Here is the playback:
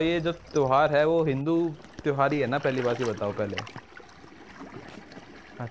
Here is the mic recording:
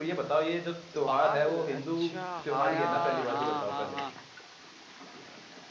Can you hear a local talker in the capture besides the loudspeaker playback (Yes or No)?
Yes